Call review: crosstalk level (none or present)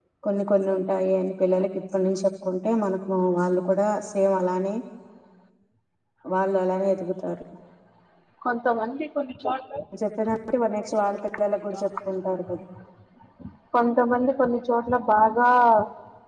none